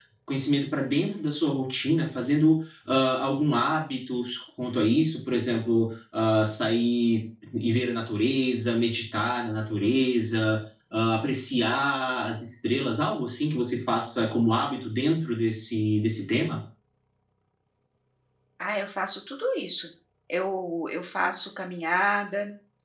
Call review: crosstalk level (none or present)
none